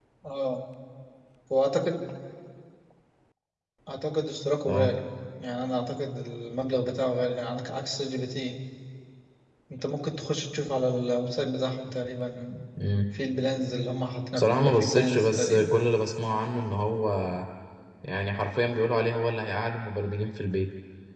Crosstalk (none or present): present